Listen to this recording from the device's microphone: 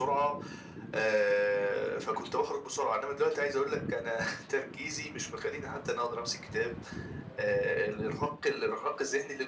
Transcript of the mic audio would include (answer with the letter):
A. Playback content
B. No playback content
A